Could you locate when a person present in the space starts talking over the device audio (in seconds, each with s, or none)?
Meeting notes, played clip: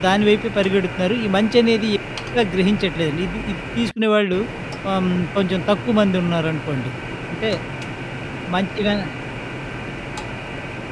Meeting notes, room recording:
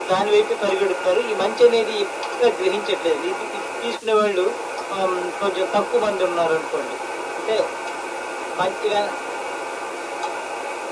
none